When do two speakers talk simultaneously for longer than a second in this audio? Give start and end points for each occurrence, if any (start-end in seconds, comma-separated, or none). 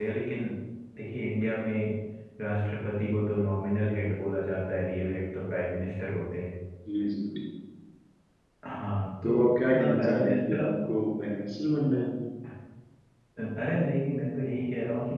9.2-10.6